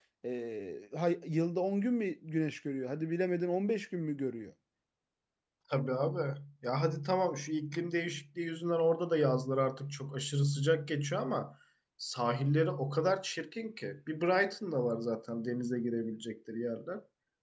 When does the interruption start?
none

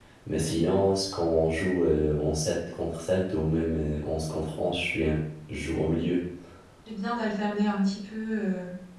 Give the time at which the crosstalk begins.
none

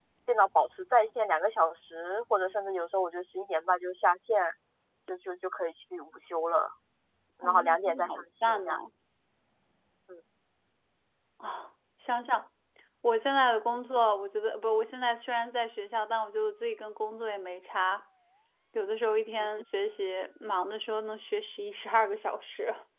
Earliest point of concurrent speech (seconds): 7.4 s

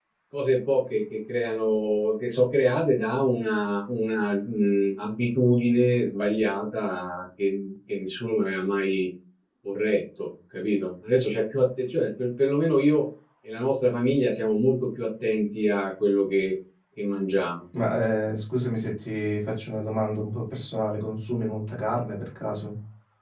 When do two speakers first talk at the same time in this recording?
none

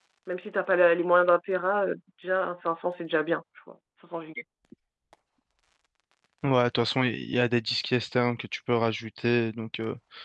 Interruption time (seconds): none

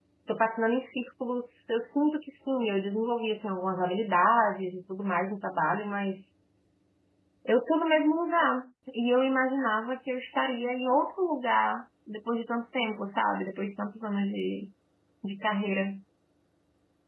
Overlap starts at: none

